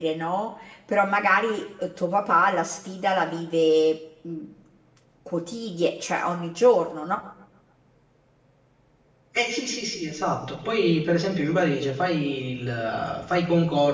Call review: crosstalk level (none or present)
none